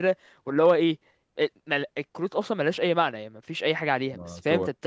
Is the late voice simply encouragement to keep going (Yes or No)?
Yes